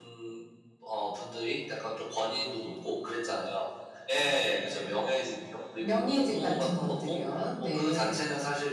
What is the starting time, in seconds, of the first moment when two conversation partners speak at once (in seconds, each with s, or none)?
5.8 s